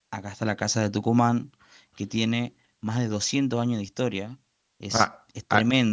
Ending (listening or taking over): listening